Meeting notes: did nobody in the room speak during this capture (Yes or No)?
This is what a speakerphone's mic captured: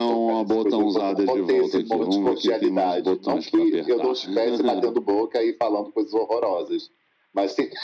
Yes